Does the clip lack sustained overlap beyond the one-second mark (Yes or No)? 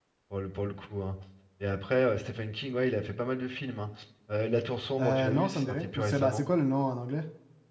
No